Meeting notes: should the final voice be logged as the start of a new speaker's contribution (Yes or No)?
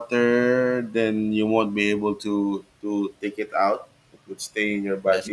No